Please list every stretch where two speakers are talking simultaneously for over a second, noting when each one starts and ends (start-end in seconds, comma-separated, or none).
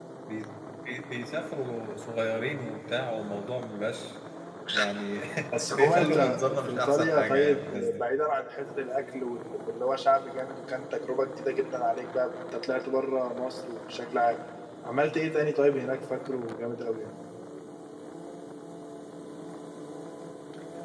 5.7-8.0